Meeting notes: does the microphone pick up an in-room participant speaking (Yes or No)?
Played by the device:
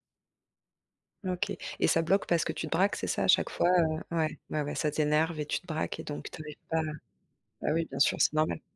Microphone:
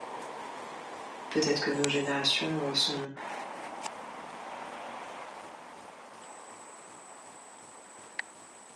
Yes